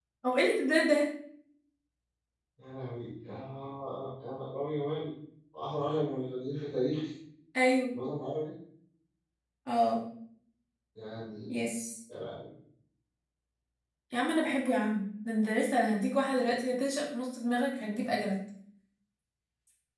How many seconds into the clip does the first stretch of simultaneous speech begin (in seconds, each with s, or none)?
none